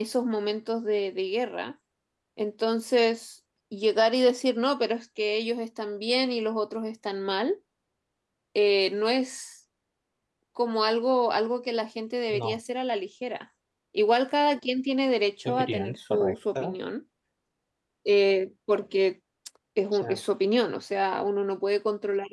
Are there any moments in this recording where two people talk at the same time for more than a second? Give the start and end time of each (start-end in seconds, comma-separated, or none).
15.4-16.8